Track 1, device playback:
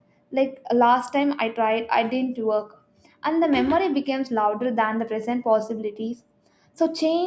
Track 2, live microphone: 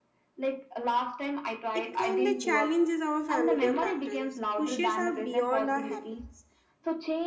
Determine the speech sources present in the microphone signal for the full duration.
both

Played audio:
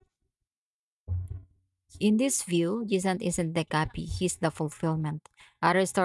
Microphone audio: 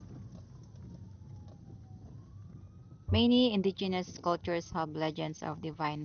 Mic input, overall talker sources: user only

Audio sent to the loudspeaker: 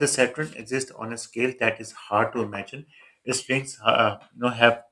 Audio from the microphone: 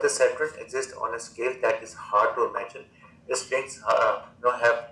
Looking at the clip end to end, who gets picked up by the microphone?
echo only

